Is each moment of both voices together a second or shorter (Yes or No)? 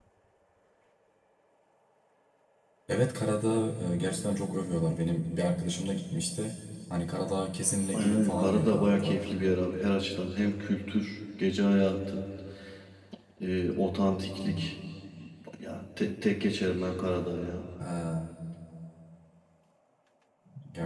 No